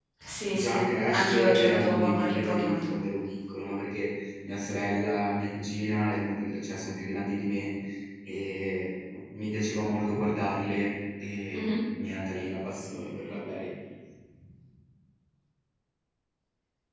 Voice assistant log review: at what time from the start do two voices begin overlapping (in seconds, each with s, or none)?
0.5 s